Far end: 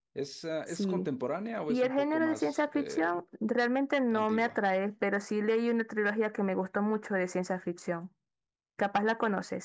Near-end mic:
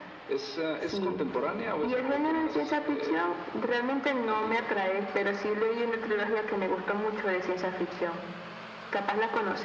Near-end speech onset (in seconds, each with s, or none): none